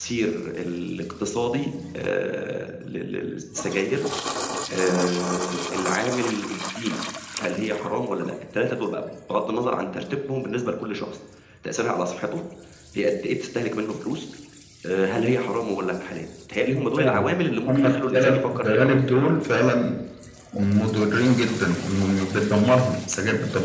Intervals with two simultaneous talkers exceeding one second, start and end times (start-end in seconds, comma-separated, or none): 17.7-19.2